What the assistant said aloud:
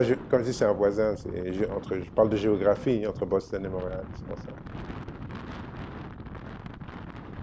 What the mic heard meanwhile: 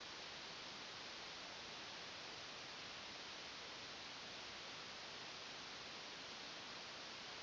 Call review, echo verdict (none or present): none